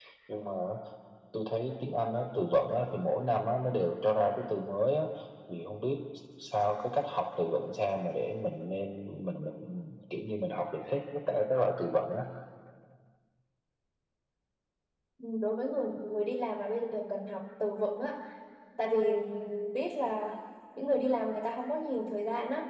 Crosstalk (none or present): none